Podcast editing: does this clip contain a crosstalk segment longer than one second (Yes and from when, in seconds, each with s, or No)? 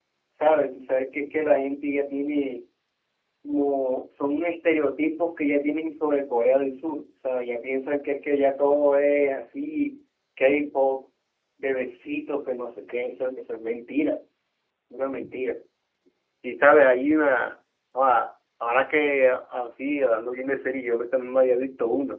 No